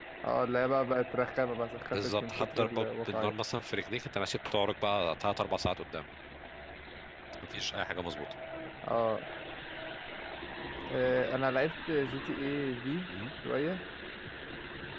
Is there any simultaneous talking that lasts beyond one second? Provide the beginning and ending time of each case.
1.9-3.3

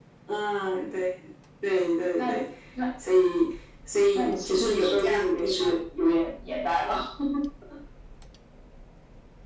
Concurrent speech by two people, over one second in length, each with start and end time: 4.1-5.8

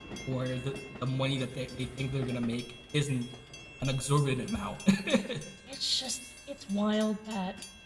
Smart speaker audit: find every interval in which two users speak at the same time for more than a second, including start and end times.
none

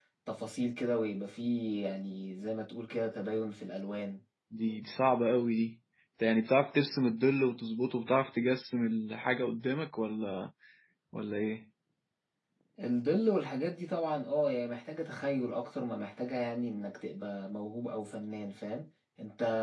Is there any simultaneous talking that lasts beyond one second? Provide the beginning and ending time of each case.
none

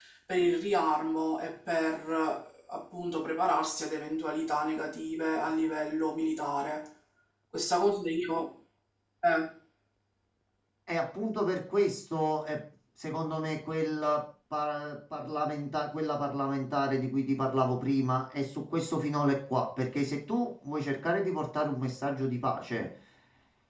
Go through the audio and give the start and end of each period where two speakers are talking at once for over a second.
none

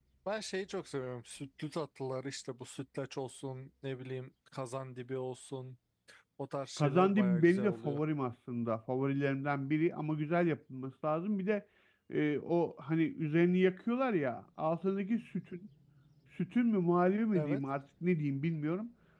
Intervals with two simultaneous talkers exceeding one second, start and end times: 6.8-8.0

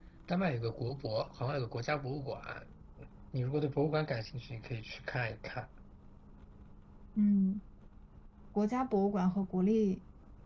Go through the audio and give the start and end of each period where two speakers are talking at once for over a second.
none

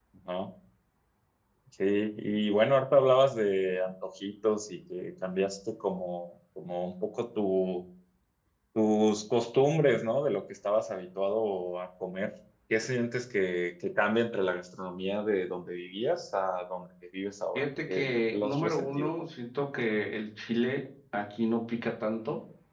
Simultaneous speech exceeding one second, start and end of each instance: 17.6-19.1

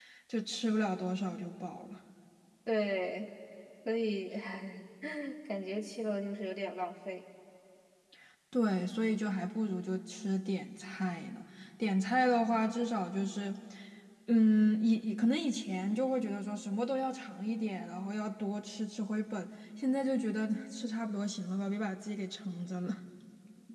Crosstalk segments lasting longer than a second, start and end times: none

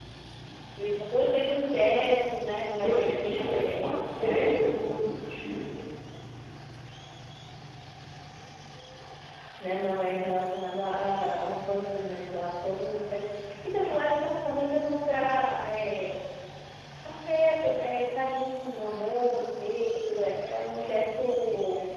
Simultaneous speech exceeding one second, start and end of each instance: 2.8-4.5

